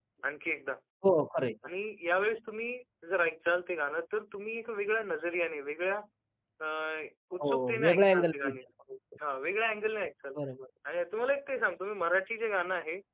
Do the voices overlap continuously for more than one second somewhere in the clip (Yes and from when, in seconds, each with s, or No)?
Yes, from 7.4 s